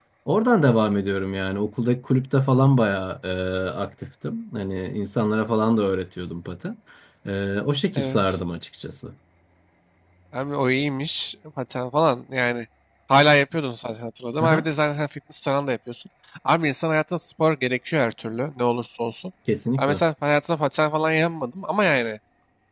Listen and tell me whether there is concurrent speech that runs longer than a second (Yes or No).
No